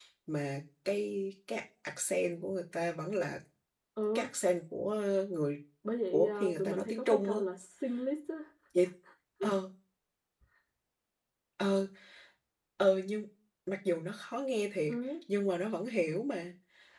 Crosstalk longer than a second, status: present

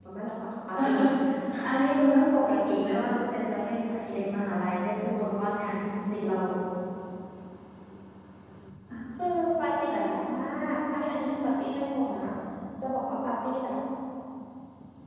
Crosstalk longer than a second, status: none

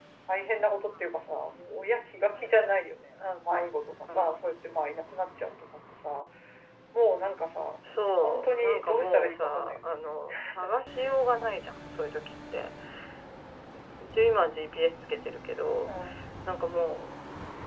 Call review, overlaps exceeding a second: present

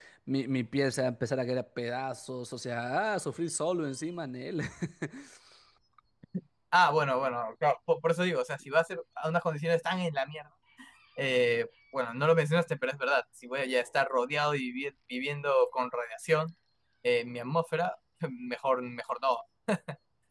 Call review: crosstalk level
none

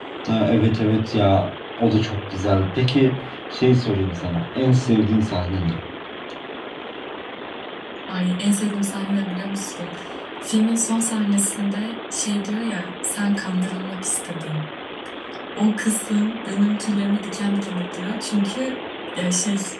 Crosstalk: none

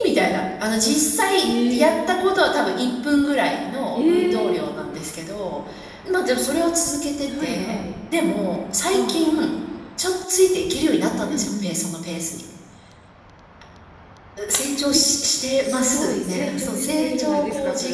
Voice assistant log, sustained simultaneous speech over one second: present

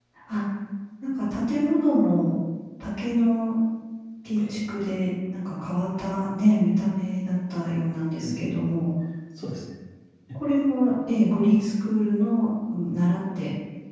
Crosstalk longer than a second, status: none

